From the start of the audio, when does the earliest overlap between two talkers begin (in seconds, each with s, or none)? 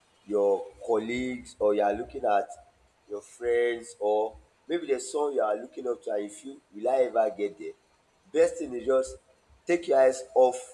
none